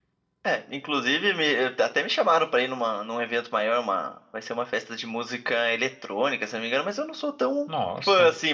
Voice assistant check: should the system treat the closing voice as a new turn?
No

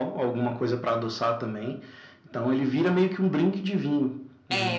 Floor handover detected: Yes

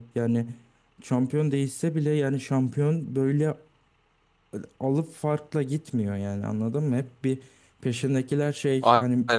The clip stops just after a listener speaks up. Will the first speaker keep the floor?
Yes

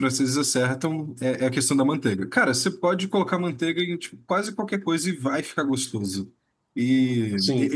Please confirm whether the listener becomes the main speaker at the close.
No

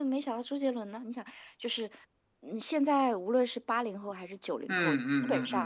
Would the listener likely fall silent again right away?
No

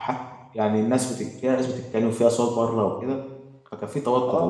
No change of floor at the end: No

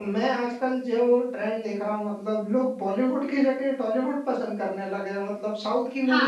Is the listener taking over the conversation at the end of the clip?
Yes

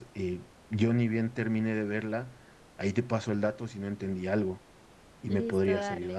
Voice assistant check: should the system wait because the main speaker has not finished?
No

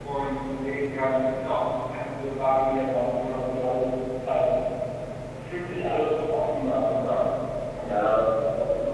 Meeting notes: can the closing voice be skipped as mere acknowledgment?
No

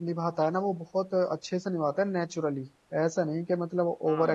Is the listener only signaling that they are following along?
No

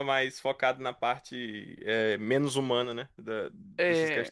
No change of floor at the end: No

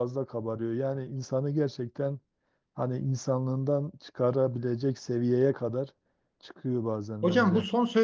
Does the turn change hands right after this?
Yes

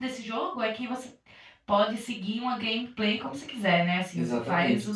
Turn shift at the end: Yes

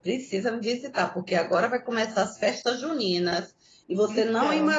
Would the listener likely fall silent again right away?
Yes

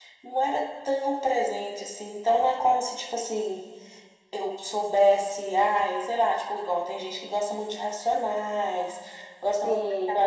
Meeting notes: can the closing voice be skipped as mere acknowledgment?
Yes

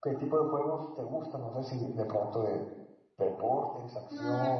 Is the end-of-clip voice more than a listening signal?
Yes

